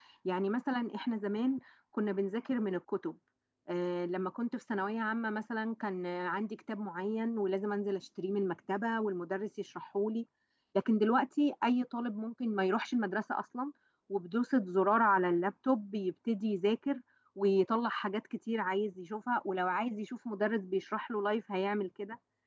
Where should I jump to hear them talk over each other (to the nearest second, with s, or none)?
none